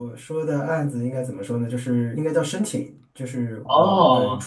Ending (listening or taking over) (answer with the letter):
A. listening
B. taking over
A